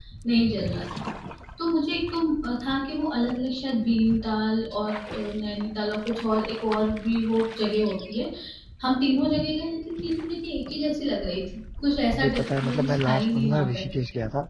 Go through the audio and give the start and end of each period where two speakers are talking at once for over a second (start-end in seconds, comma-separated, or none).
12.1-13.8